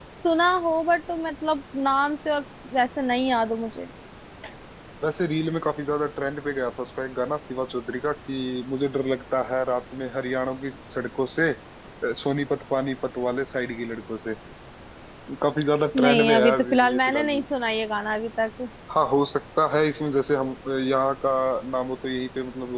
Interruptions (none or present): present